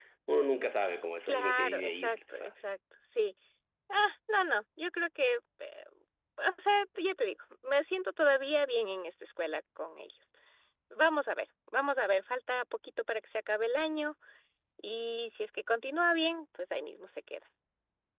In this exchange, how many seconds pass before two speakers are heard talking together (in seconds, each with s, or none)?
1.3 s